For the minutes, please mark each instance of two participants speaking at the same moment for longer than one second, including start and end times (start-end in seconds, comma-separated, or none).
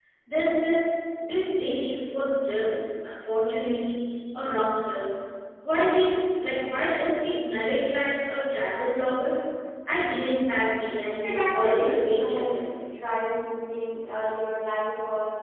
11.2-12.6